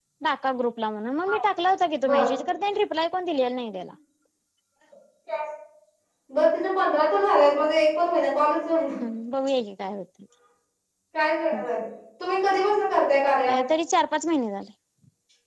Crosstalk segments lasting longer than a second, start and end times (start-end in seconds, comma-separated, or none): none